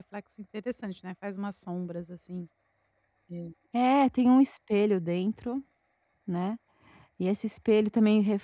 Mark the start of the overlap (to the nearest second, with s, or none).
none